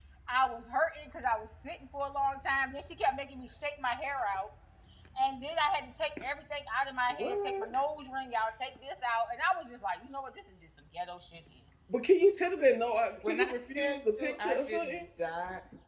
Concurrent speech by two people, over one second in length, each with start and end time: 13.3-14.8

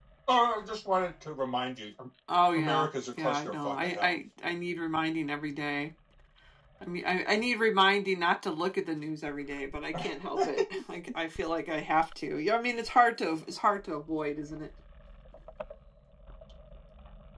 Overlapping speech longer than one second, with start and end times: 2.5-4.1

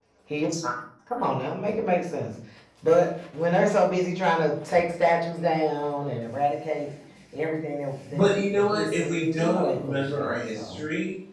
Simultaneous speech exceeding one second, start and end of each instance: 8.1-10.8

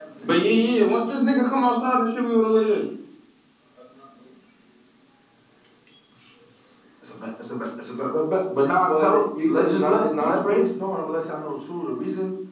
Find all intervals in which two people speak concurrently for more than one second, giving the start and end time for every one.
8.9-10.6

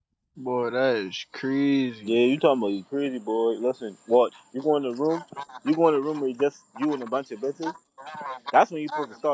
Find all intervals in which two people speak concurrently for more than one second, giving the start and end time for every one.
none

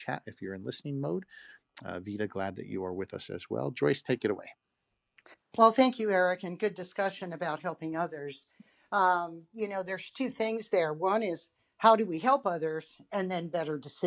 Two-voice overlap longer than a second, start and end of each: none

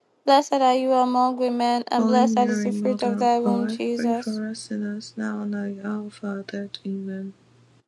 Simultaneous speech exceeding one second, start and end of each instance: 2.0-4.4

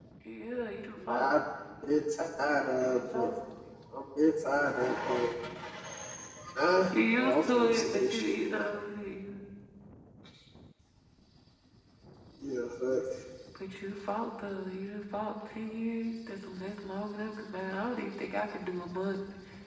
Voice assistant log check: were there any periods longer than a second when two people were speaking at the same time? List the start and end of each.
6.9-8.6

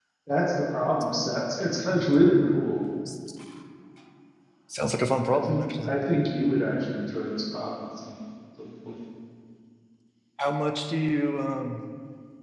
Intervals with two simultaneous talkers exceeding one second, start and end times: none

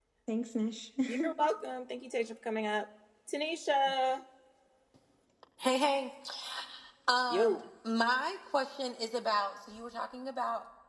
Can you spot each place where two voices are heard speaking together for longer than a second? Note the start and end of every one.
none

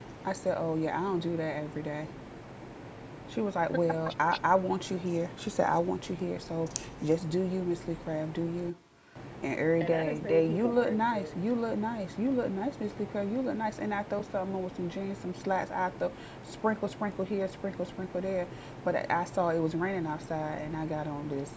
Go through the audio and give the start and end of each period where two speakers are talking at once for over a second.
9.8-11.4

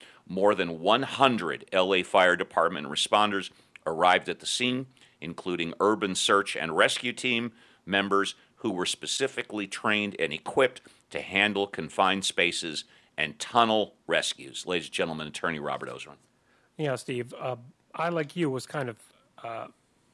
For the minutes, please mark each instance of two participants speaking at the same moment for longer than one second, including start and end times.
none

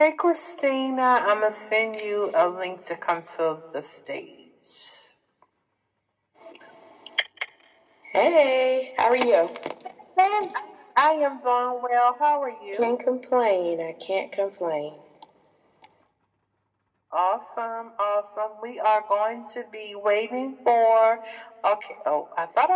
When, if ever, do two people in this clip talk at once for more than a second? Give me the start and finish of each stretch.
none

